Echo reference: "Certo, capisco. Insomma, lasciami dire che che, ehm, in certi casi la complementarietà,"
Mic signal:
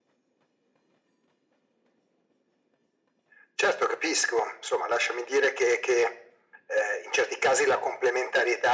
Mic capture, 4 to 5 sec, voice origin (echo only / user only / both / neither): echo only